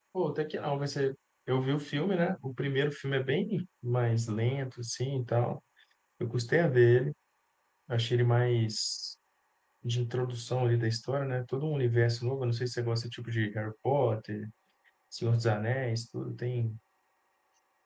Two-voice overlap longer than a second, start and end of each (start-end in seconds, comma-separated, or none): none